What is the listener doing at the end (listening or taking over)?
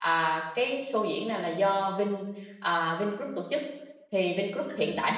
listening